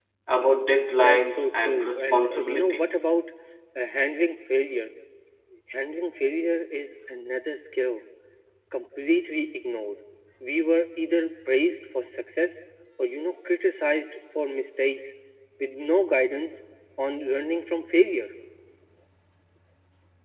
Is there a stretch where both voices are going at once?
Yes, from 1.0 s

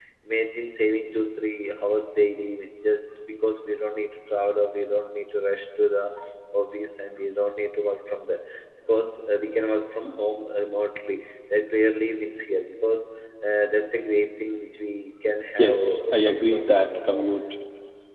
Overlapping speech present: Yes, from 15.6 s

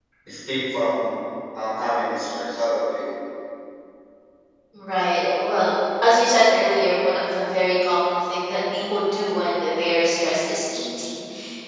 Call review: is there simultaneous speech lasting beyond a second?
No

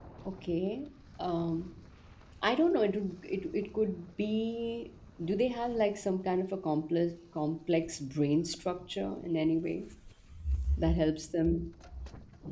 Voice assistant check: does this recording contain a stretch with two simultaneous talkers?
No

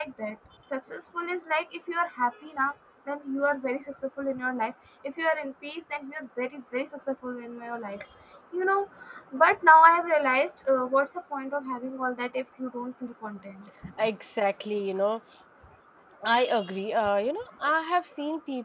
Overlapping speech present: No

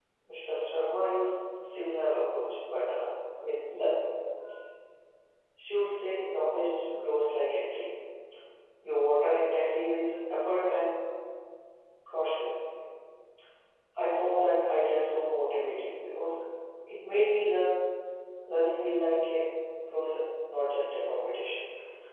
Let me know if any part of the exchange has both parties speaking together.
No

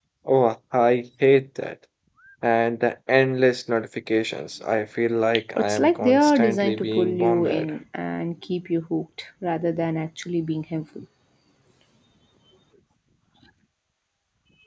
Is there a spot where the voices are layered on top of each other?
Yes, from 5.6 s

